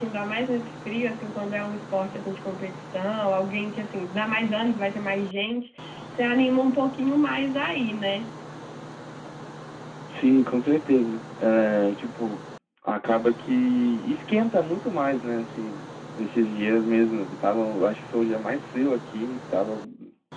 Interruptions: none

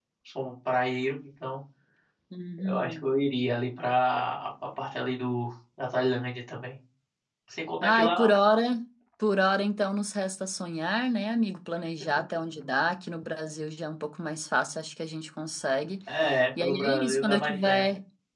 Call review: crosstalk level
present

